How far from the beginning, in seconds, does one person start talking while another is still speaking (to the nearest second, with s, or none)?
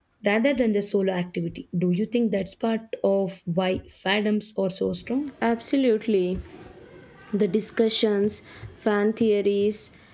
none